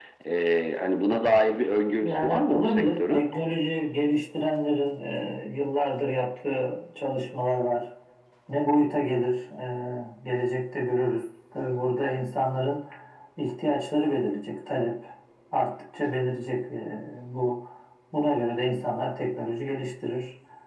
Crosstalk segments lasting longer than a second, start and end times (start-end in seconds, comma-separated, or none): 2.0-3.2